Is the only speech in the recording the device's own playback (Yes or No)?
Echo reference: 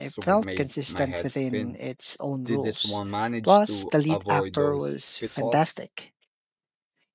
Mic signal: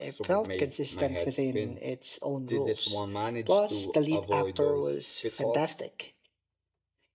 Yes